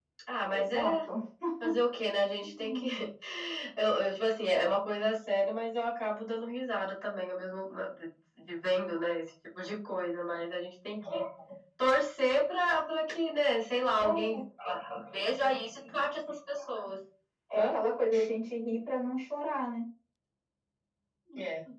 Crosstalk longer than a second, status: none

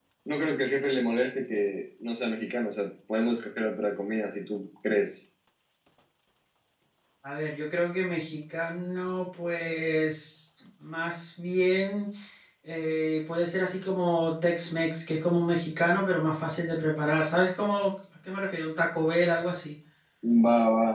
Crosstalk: none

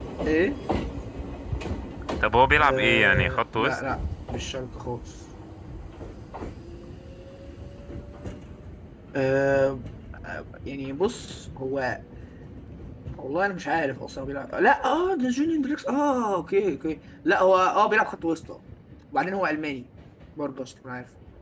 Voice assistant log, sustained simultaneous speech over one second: present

